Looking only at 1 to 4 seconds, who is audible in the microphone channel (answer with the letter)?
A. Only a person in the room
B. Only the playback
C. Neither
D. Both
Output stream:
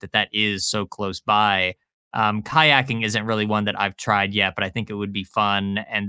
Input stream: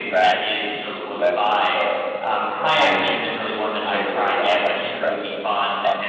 D